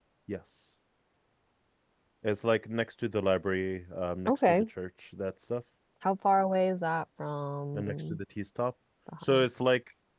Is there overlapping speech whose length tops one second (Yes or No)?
No